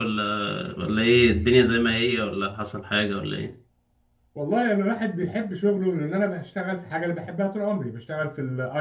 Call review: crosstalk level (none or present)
none